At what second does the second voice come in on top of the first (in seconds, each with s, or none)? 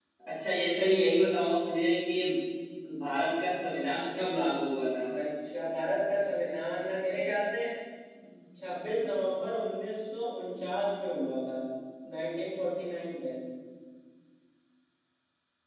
none